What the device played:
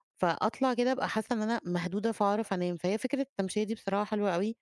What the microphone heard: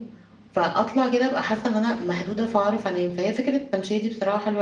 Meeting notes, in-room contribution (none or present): none